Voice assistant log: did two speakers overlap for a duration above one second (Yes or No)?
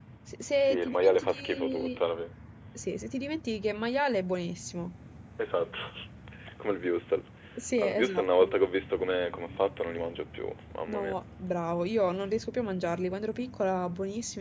Yes